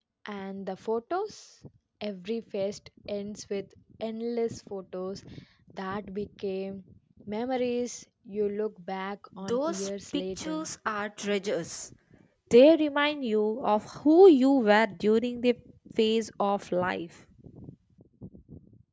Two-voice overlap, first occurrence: 9 s

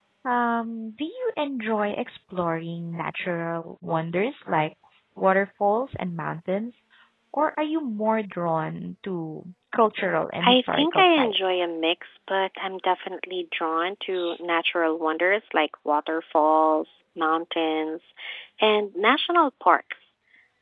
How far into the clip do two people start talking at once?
10 s

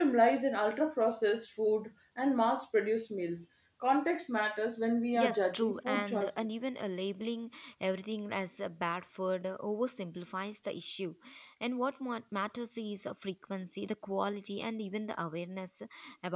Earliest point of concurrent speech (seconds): 5 s

